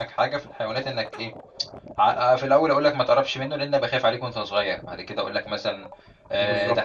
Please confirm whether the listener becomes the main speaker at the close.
No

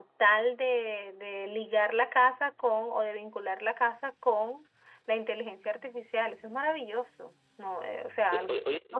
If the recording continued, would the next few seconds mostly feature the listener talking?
Yes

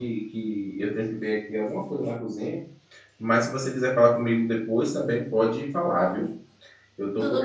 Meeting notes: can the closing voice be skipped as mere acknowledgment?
Yes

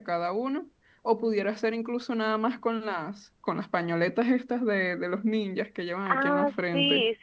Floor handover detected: Yes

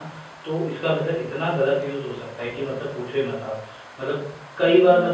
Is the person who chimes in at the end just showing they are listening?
Yes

